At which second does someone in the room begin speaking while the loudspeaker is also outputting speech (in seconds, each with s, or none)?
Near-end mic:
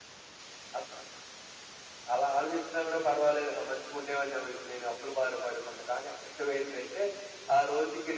none